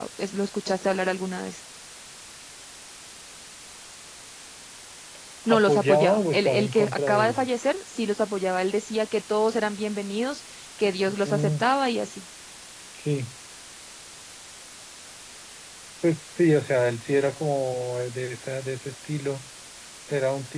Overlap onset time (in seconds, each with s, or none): 5.5 s